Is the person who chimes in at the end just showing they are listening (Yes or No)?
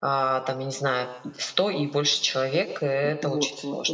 No